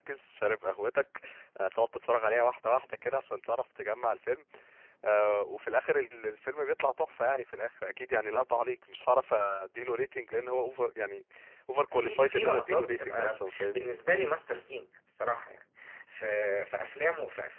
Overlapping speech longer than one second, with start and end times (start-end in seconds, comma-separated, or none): 11.9-13.9